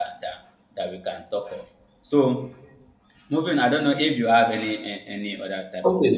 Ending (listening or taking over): taking over